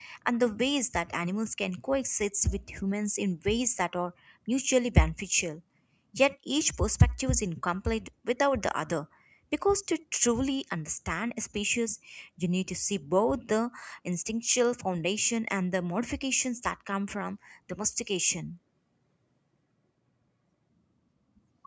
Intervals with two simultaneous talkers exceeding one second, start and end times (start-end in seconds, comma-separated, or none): none